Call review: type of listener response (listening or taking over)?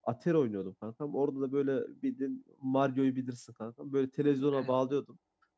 listening